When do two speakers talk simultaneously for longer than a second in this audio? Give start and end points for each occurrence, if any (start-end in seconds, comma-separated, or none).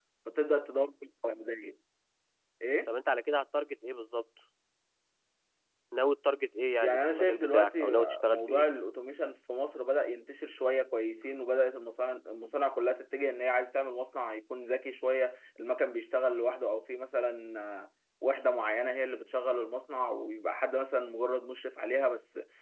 6.8-8.6